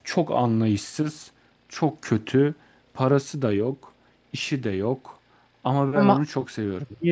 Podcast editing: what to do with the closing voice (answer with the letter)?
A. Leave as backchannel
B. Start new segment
A